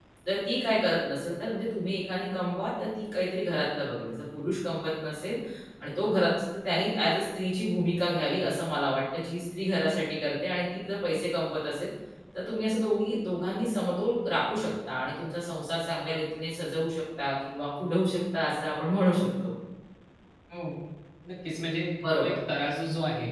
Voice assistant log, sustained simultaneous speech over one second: none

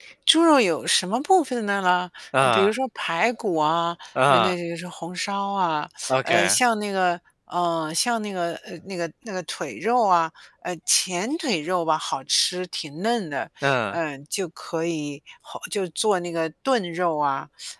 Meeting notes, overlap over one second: none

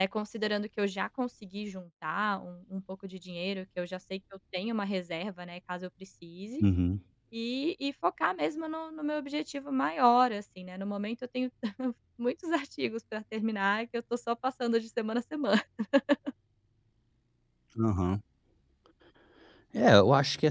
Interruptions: none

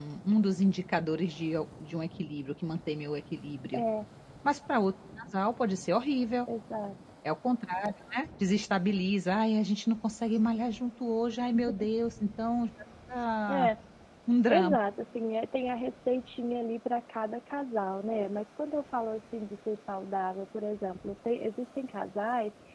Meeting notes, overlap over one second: none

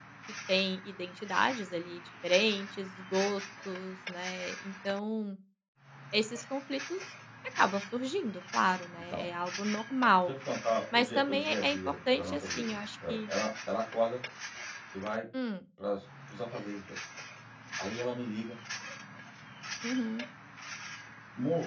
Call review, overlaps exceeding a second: present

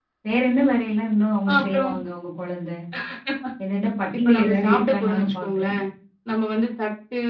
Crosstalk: present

